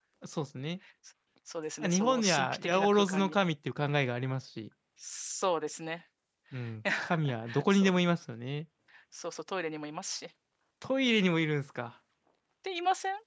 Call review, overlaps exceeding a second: present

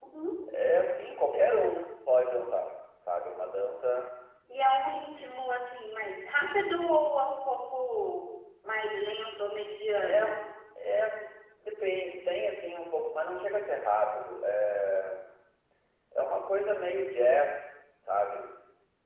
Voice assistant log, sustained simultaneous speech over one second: none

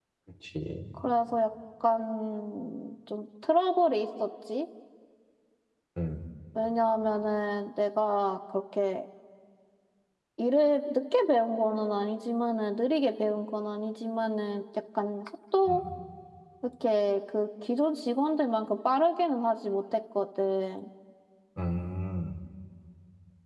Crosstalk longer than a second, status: none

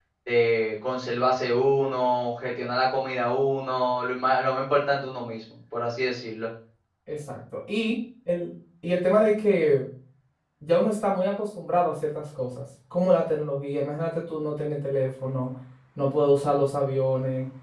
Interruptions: none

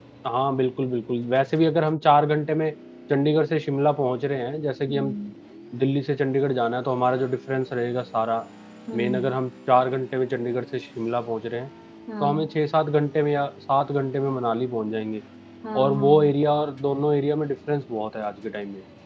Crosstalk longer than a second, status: none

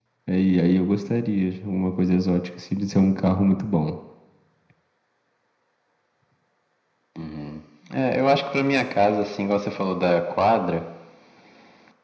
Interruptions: none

